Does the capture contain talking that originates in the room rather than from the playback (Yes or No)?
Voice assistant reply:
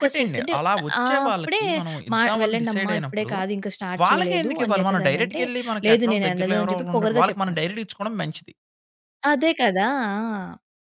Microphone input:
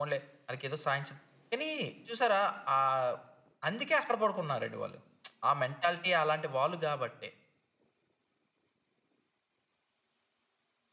Yes